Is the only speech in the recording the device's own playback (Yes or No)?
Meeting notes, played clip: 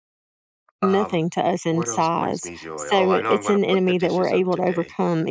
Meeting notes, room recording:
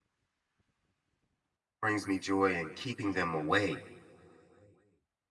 No